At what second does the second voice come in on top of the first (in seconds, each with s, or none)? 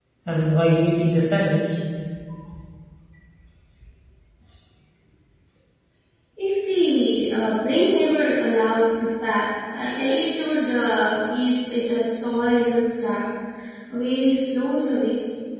none